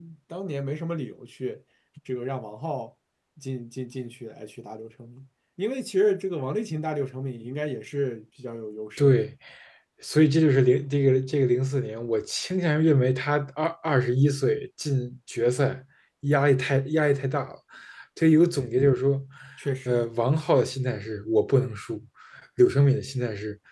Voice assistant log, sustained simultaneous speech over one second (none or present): none